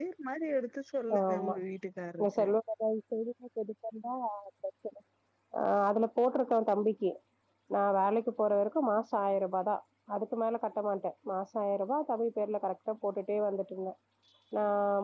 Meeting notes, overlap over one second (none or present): none